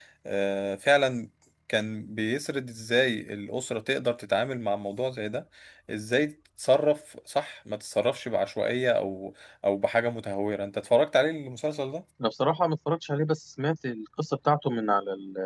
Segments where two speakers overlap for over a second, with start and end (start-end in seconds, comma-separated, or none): none